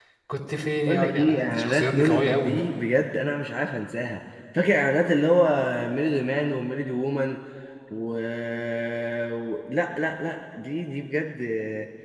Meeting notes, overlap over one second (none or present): present